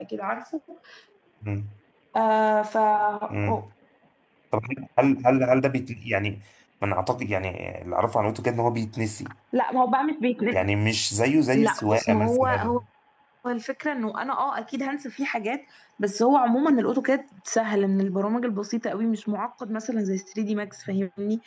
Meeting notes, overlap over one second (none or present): present